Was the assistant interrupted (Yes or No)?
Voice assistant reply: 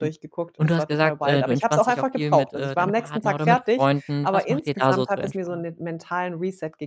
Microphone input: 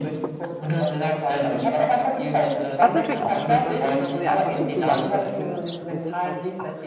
Yes